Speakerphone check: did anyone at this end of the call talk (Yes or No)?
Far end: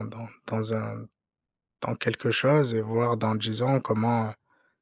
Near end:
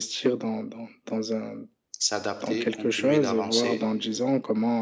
Yes